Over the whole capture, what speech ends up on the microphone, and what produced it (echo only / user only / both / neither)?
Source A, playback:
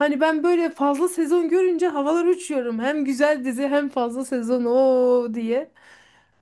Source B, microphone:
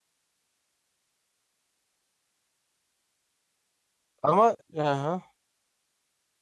user only